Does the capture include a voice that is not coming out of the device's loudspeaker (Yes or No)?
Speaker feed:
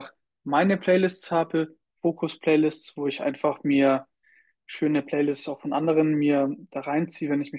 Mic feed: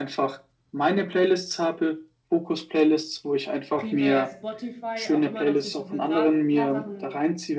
Yes